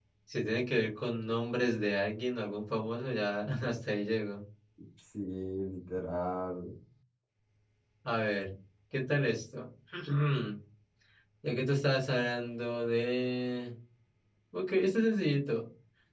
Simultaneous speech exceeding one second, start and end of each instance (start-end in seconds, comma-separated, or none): none